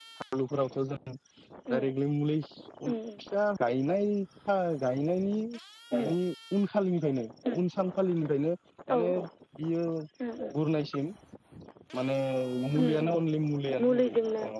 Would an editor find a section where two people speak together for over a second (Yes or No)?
No